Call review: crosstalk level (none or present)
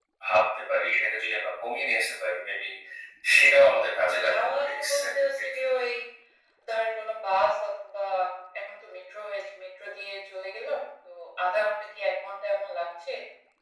present